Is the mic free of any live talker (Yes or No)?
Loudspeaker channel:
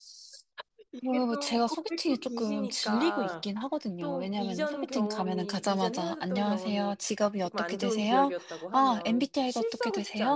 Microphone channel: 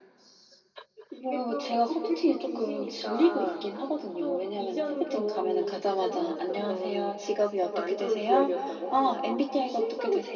Yes